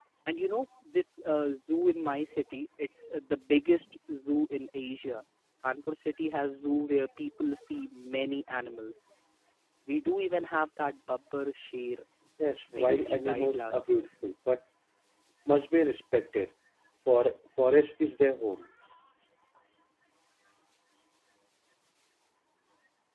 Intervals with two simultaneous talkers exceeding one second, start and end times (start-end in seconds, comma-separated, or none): 12.8-14.0